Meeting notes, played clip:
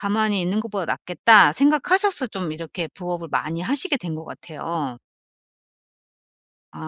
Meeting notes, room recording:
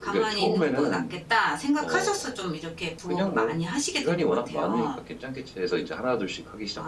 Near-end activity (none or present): present